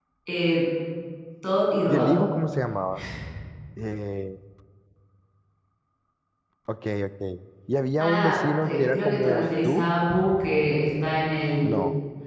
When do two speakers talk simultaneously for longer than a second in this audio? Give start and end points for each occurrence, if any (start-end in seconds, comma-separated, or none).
8.0-9.8